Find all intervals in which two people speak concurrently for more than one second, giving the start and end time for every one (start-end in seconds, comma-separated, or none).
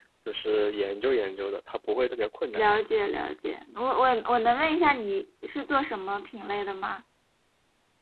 none